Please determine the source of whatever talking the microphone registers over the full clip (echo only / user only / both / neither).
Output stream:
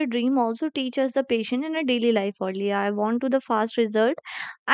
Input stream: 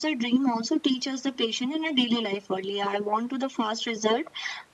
echo only